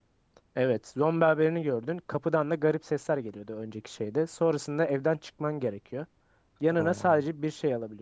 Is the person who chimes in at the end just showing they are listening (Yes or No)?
Yes